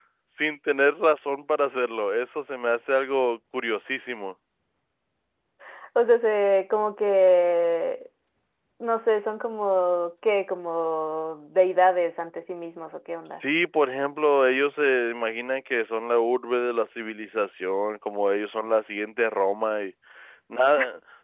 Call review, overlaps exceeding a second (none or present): none